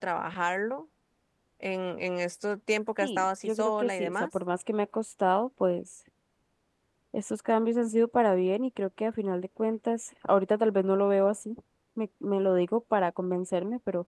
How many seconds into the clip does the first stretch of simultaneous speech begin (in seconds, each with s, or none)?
3.0 s